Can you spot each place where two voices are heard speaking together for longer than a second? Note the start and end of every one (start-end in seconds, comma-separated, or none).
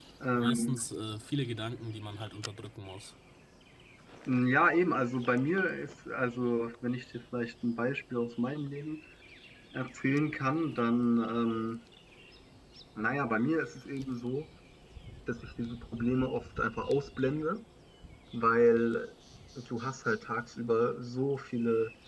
none